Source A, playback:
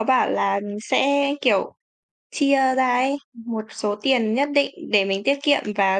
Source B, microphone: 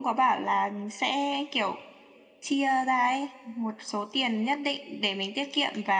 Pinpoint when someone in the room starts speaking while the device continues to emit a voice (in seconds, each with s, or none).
none